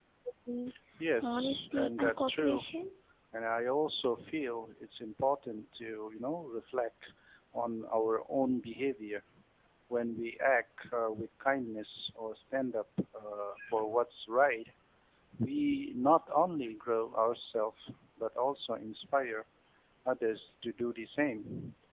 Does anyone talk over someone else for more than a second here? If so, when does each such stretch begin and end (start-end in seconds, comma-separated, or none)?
1.2-2.7